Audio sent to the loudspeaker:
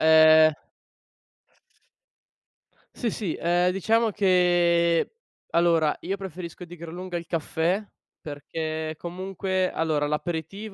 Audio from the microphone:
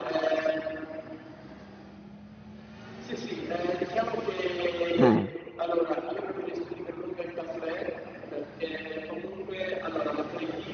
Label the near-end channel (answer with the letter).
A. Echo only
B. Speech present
B